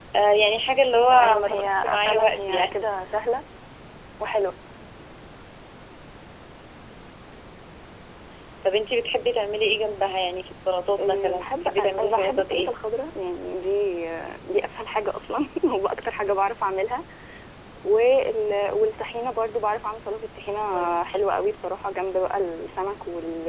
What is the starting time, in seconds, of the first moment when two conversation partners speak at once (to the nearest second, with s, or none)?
1 s